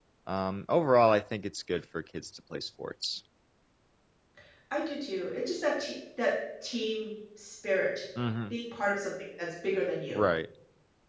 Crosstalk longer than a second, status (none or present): none